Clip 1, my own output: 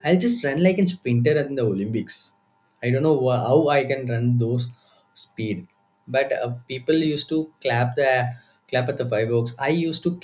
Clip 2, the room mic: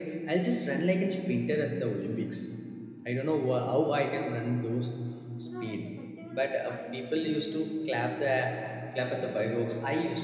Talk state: both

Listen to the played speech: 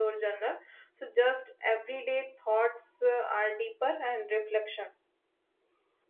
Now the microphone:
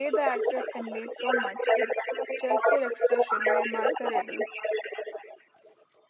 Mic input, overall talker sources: both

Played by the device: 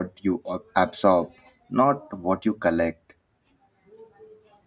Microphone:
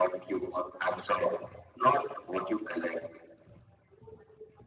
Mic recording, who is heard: echo only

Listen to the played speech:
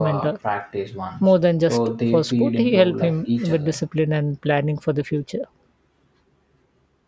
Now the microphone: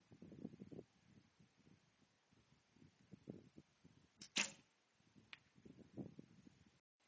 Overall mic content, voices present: neither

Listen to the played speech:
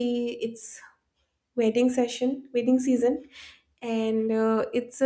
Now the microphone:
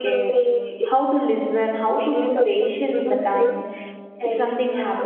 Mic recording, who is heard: both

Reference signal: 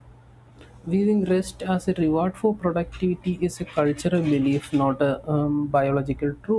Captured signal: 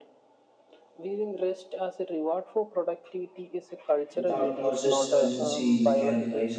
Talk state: both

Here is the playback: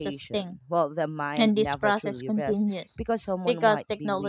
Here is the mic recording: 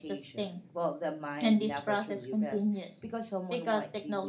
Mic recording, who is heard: echo only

